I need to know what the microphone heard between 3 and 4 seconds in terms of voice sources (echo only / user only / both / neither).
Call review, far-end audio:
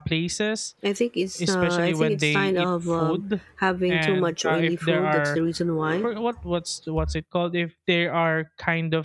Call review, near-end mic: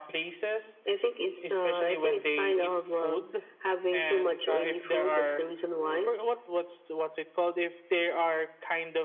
echo only